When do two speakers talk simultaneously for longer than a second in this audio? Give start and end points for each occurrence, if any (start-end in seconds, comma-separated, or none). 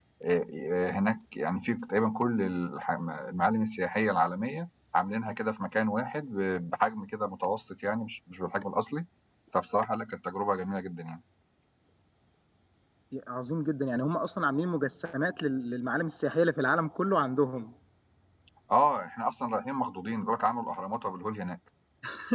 none